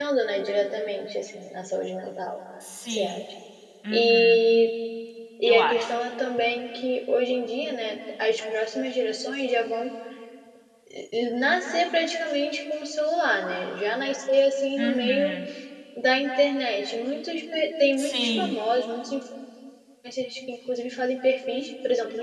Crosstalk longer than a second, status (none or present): none